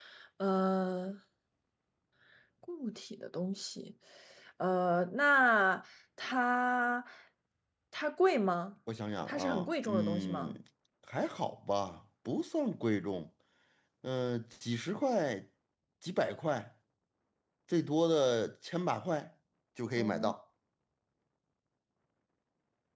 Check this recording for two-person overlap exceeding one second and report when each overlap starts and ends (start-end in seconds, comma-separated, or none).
9.3-10.6